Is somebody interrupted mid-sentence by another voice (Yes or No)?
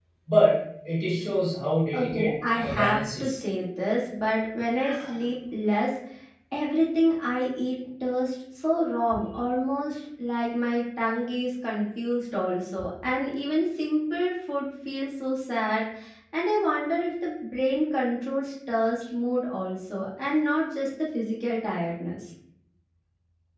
Yes